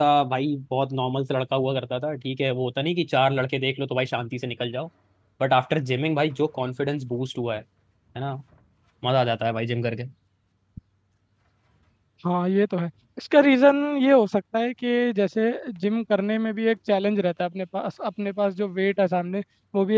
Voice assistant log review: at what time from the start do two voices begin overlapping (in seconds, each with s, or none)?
none